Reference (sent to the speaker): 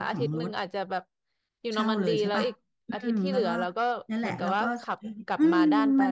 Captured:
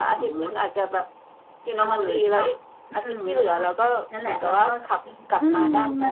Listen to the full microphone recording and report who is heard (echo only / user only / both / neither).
echo only